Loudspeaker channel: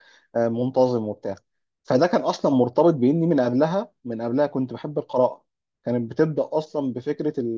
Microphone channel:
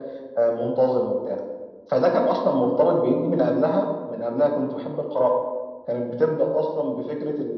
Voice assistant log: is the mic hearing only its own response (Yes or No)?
Yes